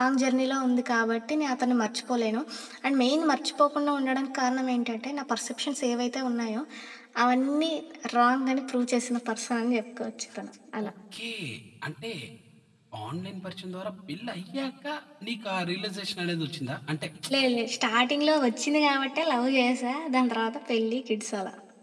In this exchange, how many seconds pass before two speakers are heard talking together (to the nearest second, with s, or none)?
none